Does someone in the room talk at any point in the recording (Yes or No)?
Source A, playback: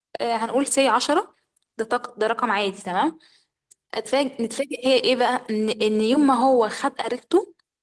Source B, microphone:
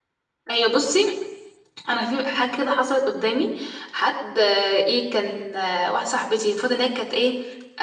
Yes